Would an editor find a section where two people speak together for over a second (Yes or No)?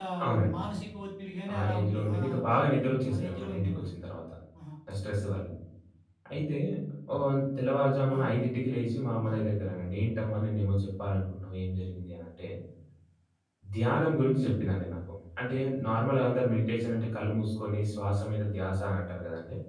Yes